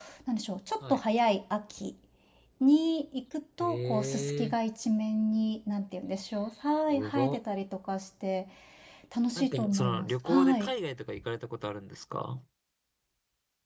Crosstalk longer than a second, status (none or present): present